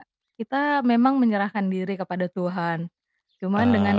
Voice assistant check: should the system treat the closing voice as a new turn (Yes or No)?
No